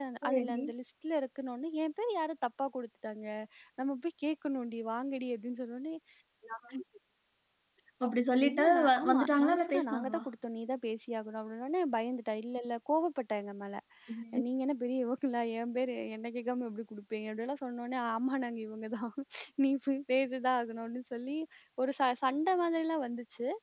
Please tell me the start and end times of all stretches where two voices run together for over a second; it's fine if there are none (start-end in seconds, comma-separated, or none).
8.5-10.2